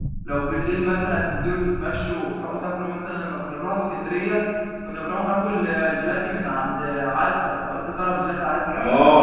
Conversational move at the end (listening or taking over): taking over